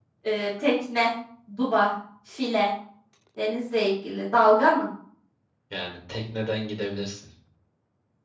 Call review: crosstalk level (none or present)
none